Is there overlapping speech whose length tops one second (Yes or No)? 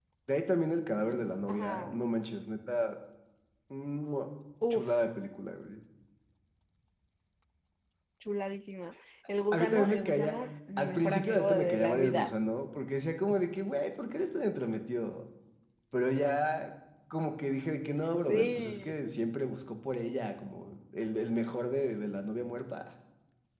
Yes